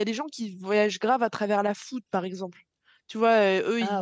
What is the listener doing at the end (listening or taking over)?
listening